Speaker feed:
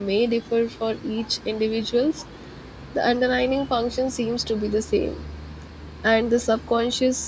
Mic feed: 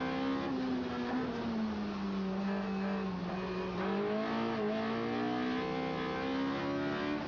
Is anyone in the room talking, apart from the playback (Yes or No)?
No